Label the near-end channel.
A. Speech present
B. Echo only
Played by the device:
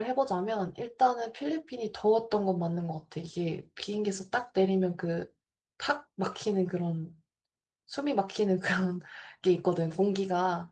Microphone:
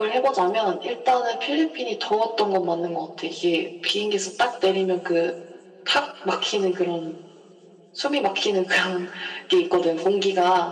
B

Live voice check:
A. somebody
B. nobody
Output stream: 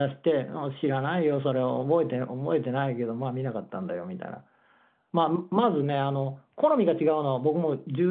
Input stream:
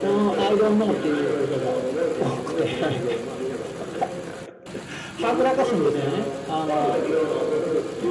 A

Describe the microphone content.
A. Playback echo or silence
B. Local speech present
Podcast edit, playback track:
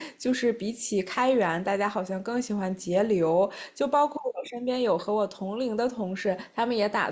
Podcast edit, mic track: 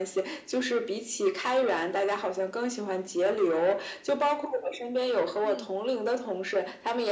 B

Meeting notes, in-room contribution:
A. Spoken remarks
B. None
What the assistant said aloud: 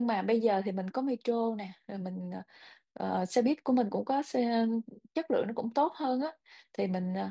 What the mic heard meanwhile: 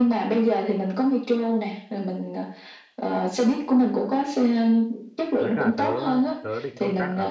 A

